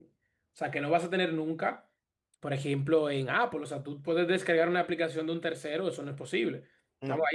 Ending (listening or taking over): listening